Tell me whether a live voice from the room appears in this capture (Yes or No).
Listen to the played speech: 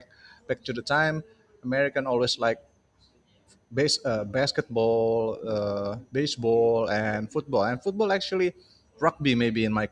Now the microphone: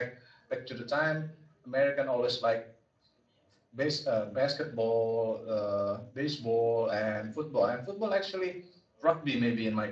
No